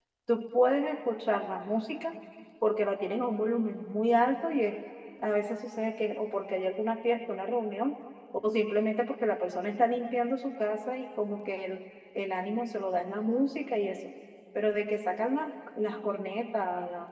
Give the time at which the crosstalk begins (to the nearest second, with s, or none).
none